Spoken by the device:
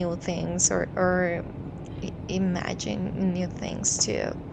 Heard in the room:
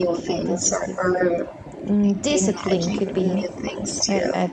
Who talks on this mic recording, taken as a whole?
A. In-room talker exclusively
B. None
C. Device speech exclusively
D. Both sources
D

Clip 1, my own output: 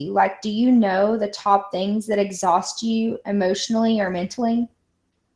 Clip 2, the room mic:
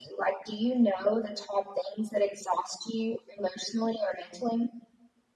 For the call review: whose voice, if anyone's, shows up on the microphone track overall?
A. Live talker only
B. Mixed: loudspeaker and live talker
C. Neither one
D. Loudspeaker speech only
D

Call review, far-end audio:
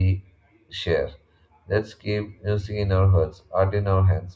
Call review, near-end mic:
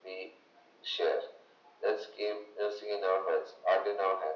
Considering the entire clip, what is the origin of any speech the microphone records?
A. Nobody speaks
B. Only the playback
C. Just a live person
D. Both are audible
B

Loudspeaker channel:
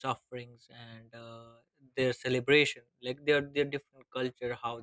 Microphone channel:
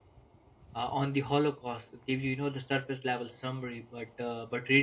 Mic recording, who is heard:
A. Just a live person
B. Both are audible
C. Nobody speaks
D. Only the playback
A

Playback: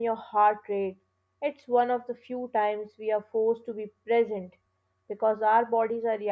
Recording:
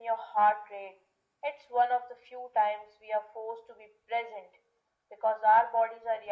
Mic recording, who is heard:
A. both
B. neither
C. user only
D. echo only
D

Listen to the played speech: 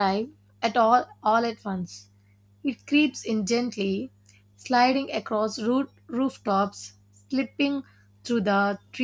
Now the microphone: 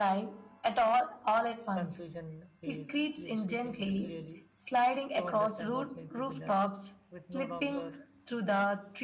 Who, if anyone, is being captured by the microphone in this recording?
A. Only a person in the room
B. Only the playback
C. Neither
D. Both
D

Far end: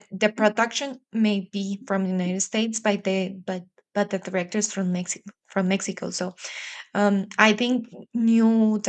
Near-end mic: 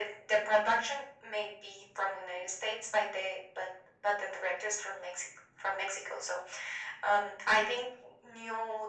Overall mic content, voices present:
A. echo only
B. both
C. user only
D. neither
A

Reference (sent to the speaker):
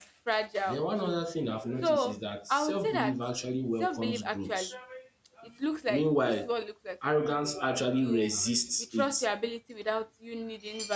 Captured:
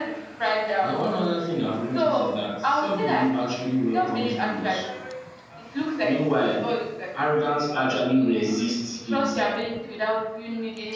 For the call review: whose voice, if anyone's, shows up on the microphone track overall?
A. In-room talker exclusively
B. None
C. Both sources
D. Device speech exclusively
D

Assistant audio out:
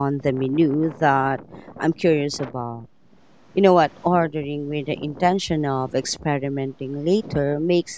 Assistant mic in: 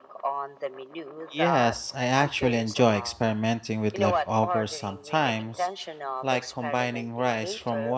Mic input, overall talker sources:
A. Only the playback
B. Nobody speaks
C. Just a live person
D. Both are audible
D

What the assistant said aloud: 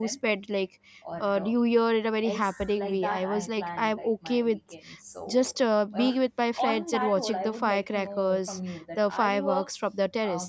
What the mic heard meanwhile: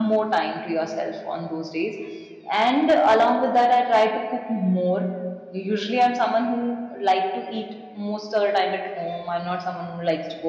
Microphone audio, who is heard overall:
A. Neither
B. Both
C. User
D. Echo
C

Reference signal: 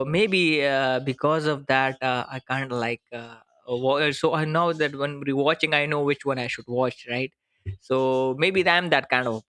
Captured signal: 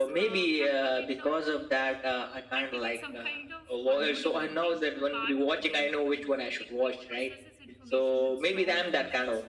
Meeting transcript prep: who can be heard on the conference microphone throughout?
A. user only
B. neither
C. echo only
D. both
D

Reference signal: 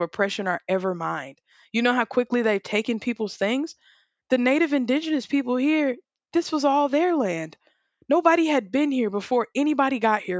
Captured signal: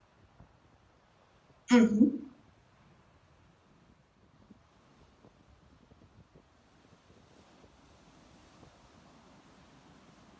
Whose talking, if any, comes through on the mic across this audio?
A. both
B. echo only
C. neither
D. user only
D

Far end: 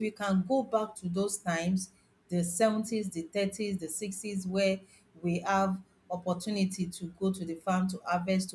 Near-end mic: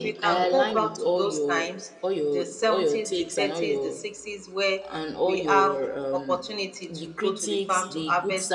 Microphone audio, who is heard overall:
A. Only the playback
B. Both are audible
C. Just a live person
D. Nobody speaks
B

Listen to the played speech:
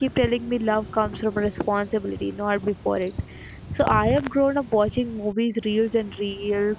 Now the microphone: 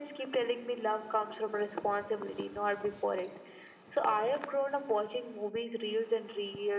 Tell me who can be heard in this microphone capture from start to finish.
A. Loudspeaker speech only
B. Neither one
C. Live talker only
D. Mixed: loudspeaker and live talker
A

